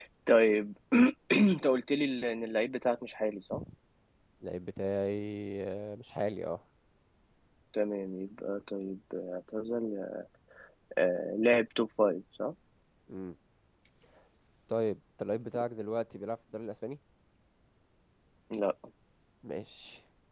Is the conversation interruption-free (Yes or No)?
Yes